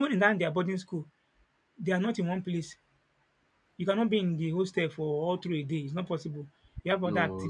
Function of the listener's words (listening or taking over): listening